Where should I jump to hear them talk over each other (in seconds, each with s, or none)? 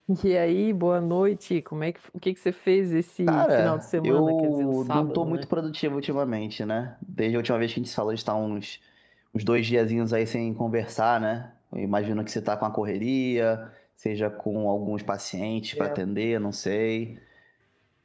3.3 s